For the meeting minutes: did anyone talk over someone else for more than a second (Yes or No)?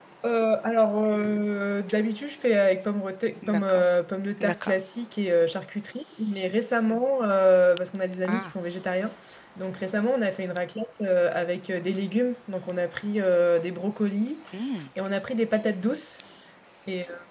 No